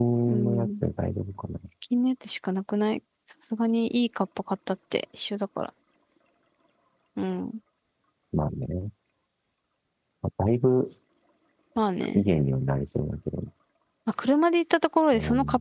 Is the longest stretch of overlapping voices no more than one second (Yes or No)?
Yes